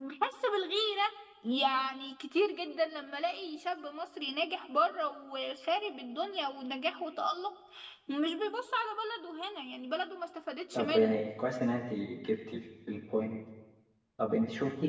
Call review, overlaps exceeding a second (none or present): none